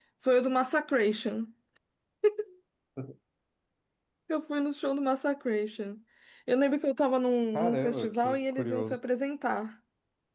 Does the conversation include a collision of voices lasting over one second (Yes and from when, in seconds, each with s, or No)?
Yes, from 7.5 s